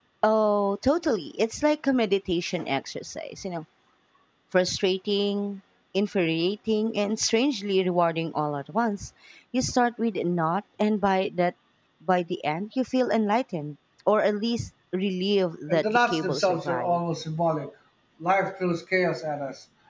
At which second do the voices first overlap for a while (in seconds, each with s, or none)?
15.7 s